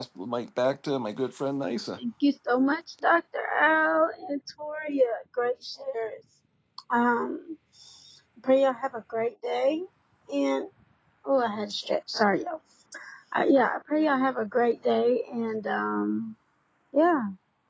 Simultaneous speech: No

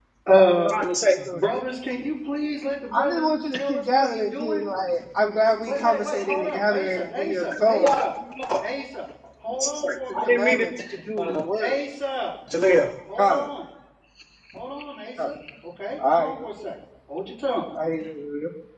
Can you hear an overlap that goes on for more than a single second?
Yes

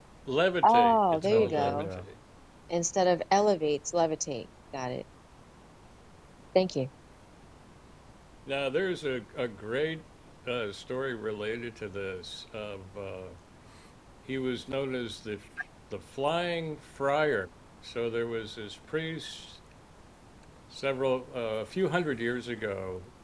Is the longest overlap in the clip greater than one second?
Yes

